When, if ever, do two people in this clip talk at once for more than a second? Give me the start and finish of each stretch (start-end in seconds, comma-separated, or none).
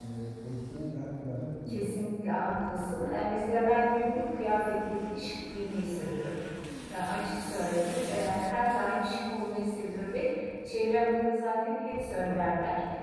none